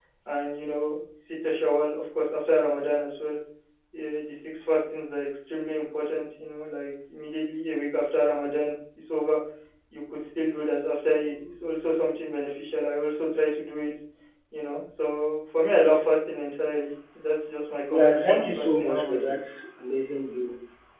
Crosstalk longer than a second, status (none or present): present